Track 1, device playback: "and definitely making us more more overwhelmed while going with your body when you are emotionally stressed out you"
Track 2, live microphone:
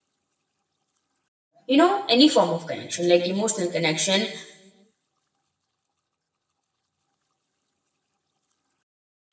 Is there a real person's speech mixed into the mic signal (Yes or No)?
Yes